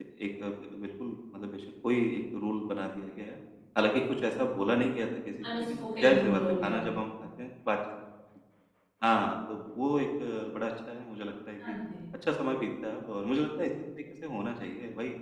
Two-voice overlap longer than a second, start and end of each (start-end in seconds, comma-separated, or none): 5.5-7.0